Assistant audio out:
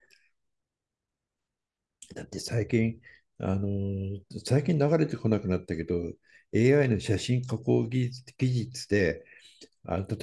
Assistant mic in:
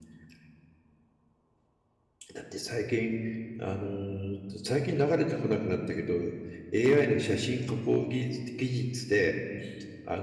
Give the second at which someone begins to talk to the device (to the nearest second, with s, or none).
none